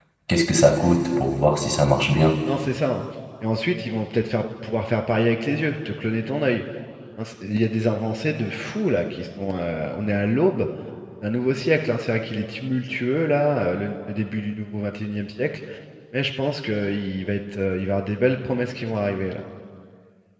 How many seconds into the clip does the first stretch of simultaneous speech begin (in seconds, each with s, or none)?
none